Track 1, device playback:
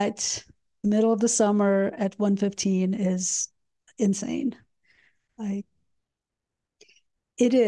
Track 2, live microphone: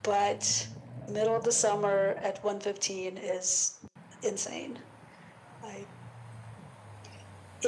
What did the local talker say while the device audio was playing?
none

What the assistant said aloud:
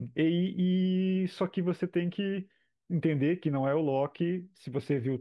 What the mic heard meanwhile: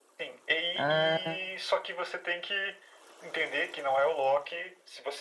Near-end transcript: Ah.

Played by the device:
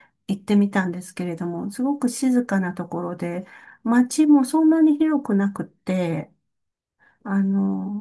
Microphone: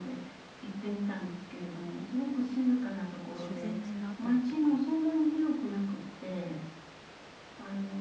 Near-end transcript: 修善寺のあたりとか、

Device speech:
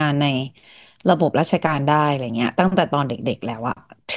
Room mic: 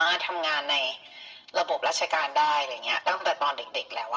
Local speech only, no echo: none

